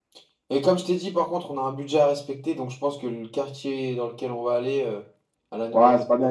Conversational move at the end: taking over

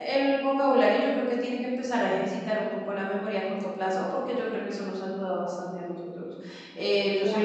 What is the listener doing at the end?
listening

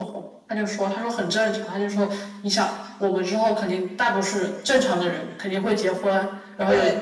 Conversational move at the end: listening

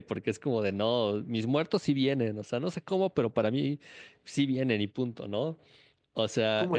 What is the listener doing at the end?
taking over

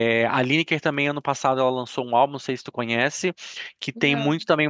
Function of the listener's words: listening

